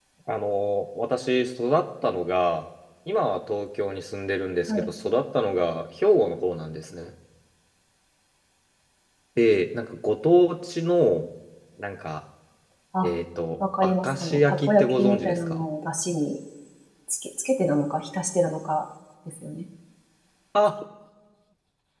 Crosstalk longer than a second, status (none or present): present